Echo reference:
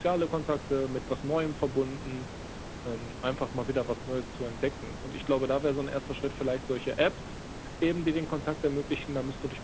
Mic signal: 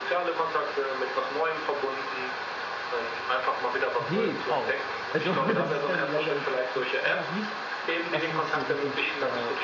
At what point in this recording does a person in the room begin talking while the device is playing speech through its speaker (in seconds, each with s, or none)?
4.0 s